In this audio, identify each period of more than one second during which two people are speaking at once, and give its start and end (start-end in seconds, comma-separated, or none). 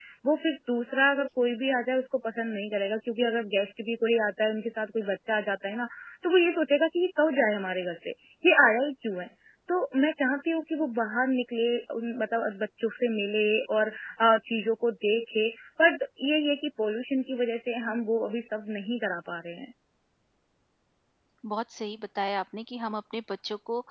none